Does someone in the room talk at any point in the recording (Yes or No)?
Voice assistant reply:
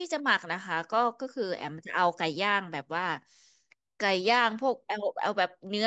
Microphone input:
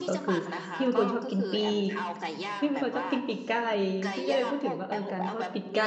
Yes